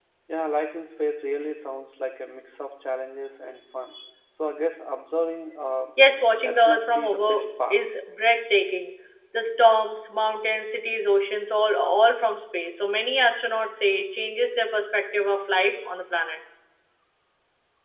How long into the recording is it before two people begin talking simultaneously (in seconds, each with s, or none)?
6.4 s